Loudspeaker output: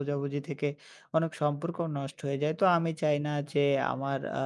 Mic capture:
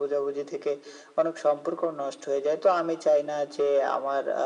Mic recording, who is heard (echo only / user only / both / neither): echo only